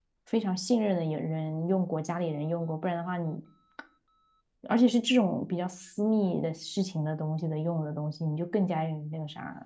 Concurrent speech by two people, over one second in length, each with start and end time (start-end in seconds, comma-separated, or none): none